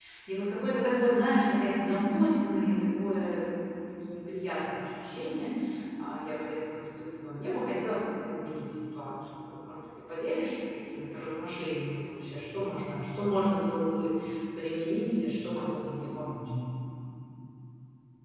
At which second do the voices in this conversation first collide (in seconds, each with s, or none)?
none